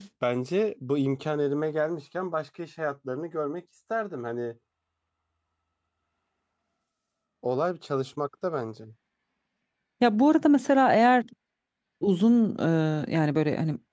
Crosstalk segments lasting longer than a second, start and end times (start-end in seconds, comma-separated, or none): none